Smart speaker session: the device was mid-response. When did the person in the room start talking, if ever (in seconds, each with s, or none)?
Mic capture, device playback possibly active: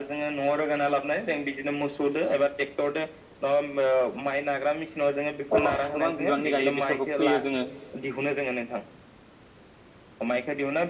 5.5 s